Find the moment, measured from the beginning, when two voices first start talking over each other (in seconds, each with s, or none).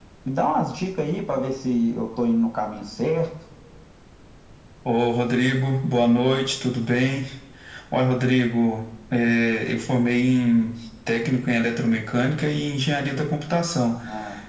none